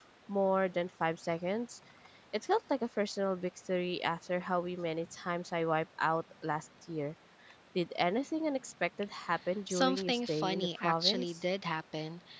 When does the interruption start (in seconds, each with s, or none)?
9.7 s